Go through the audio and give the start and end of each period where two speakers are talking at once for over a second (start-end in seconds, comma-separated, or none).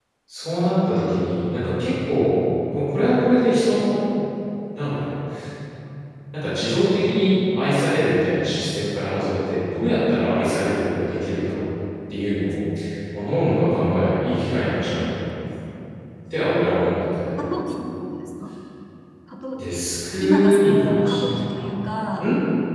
20.2-21.7